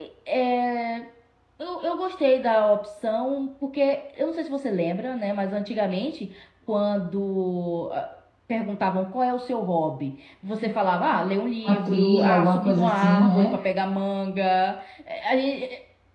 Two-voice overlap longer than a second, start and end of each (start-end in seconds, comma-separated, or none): 11.6-13.5